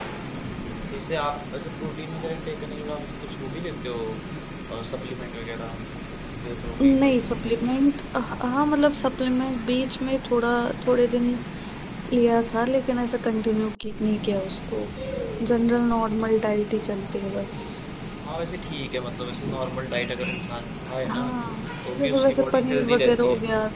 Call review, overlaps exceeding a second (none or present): present